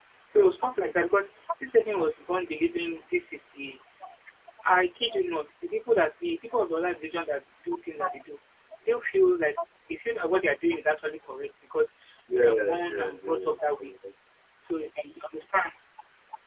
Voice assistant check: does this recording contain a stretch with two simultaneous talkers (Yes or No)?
Yes